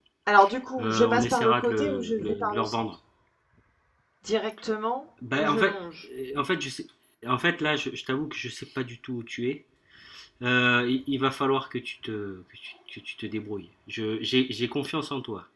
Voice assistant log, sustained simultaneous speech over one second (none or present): present